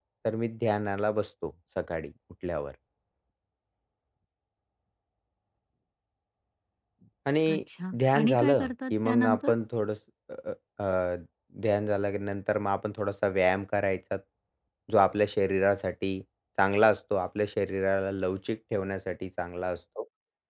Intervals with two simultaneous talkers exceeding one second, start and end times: 8.1-9.5

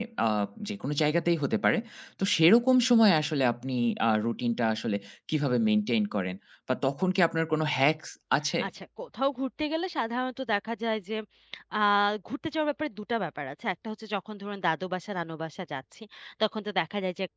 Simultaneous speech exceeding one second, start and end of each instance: none

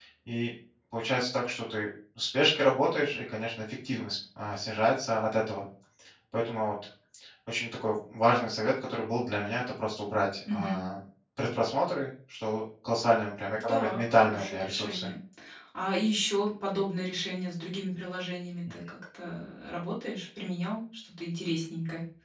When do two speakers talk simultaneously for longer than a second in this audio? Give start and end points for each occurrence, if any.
13.6-15.1

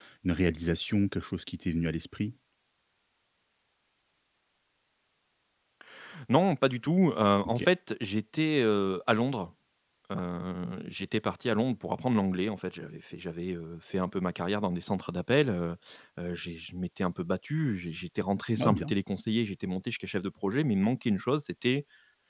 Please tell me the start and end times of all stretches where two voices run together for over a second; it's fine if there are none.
none

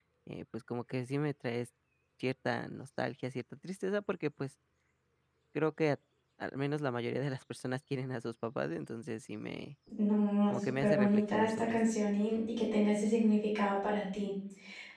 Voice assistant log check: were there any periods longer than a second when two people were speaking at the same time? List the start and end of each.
10.5-11.8

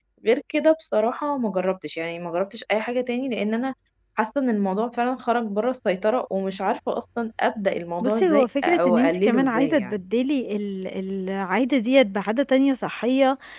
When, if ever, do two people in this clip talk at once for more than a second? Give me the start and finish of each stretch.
8.0-9.9

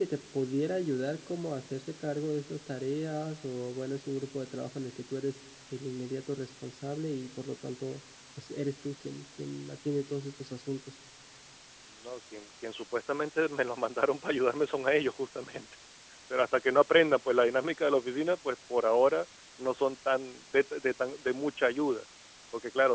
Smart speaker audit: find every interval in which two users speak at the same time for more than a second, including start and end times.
none

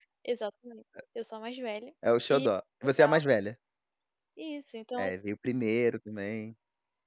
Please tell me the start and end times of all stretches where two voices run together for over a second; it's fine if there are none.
none

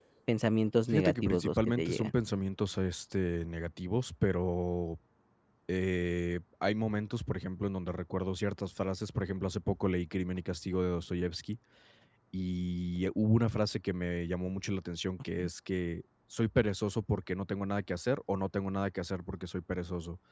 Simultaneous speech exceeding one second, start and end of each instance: 0.9-2.1

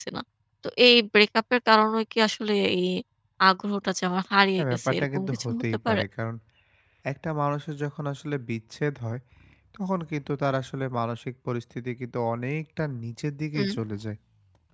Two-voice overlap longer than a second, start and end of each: 4.6-6.0

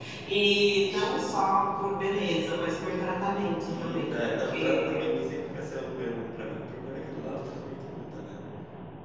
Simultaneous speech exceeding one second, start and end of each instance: 3.7-5.0

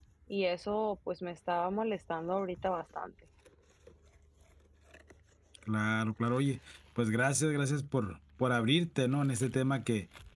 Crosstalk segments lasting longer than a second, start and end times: none

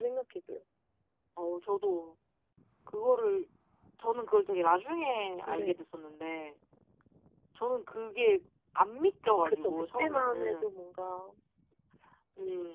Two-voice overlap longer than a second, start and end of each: 9.4-10.8

